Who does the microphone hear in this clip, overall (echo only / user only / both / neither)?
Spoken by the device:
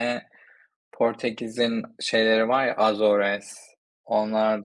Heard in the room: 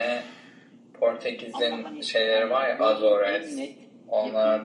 both